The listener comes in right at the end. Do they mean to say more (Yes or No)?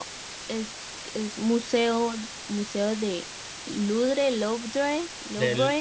Yes